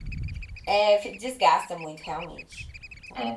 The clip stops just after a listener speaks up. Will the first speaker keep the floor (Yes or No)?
No